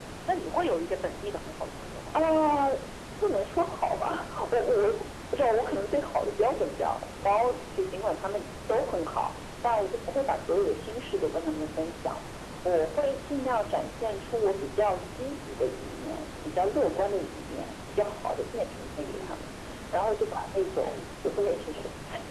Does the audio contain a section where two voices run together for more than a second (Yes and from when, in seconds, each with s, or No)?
No